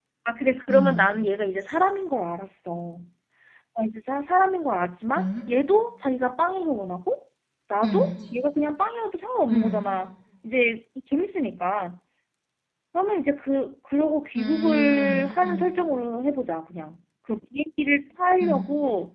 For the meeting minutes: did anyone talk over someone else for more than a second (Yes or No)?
Yes